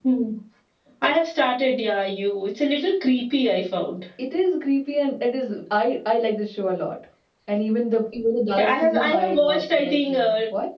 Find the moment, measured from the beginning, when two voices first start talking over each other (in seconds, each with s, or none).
8.6 s